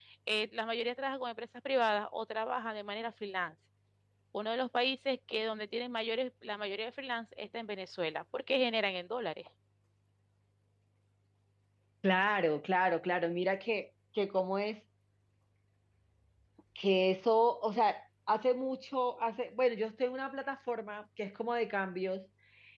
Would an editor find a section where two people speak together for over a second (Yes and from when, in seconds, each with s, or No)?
No